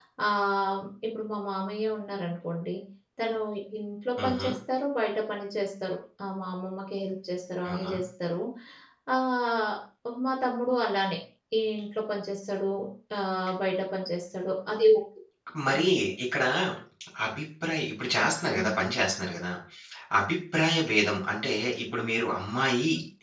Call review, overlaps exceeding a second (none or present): none